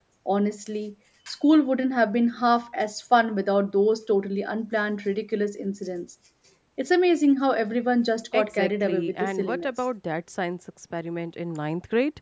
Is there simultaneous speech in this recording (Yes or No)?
Yes